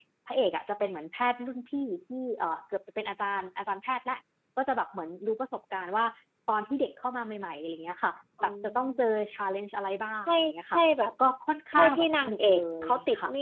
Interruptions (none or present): present